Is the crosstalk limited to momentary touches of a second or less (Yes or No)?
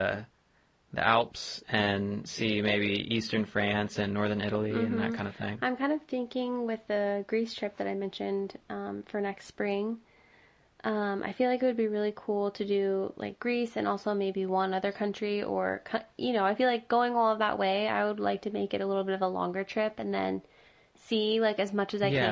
Yes